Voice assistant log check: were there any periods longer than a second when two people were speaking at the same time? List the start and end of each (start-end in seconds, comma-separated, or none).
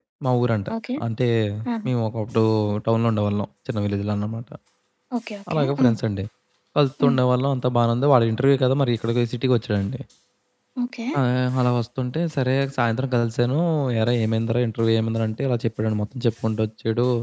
none